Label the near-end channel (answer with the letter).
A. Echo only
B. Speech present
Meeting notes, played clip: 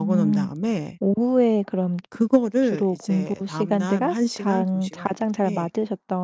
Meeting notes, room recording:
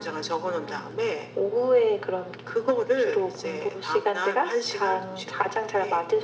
A